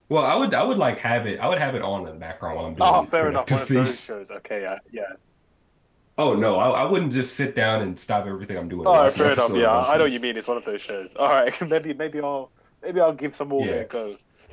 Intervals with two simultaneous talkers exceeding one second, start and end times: 2.8-4.1, 8.8-10.1

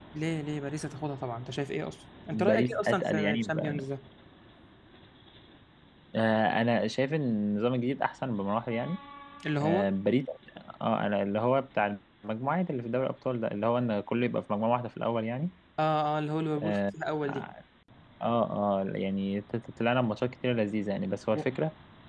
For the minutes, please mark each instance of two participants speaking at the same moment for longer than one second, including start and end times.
2.3-3.9

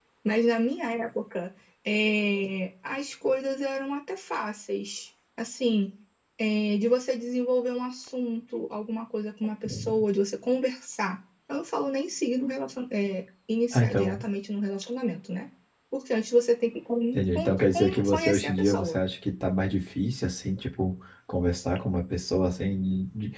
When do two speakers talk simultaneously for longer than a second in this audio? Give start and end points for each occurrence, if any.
17.1-19.0

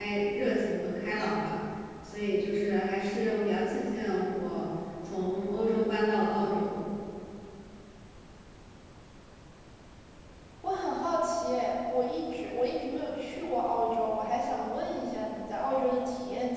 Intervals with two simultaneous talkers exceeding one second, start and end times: none

